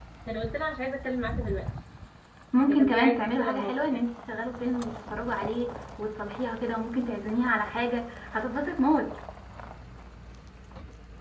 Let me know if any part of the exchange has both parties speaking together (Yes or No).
Yes